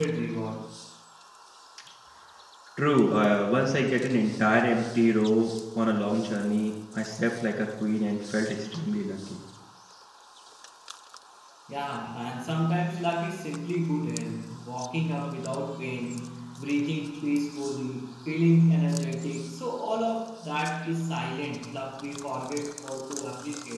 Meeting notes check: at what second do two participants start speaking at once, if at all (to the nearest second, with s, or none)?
none